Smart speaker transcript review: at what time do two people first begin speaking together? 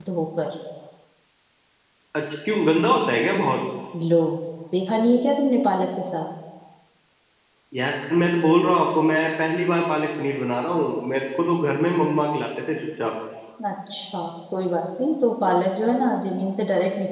none

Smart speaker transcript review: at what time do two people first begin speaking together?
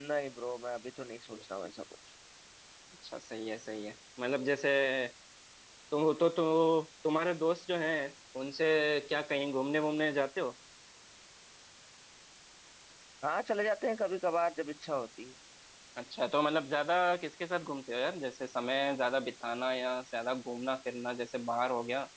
none

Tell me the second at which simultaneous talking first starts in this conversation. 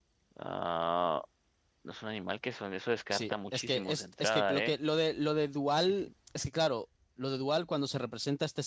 3.1 s

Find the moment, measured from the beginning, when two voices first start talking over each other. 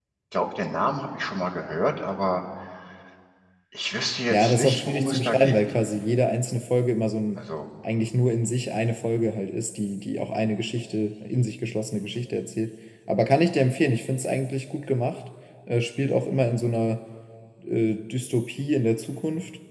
4.3 s

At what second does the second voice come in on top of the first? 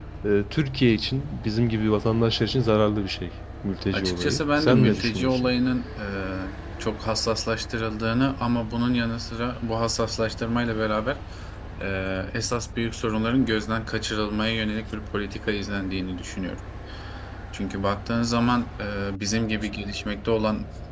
3.9 s

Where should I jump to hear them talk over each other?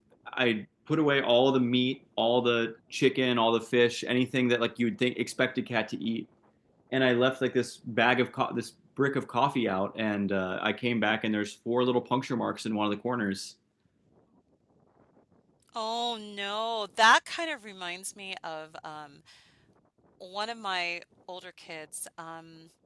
none

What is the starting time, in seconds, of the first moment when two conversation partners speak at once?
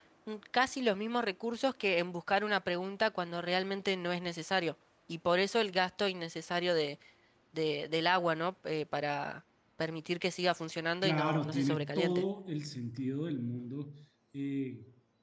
11.0 s

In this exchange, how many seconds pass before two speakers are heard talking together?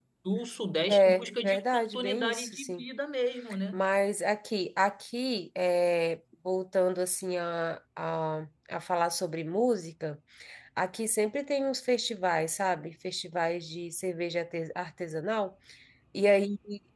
0.9 s

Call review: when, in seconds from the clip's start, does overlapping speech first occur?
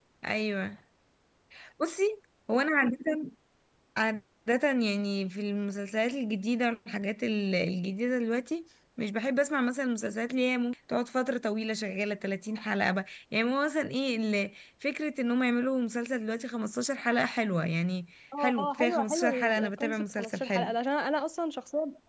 18.3 s

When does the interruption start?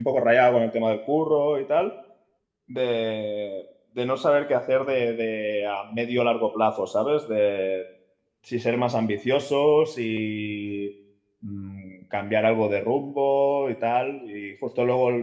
none

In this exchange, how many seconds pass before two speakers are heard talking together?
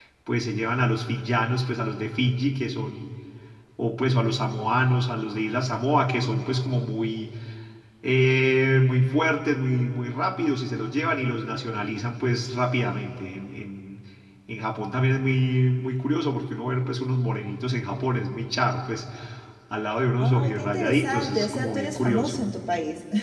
20.2 s

